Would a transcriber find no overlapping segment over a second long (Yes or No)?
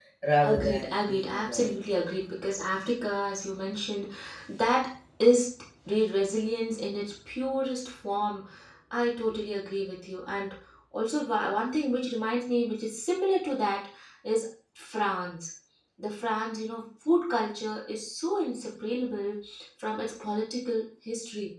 No